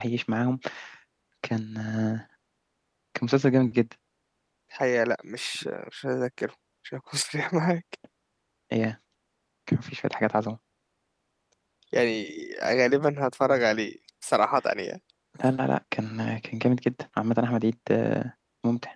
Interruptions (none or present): none